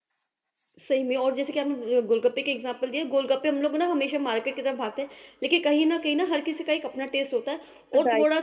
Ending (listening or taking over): listening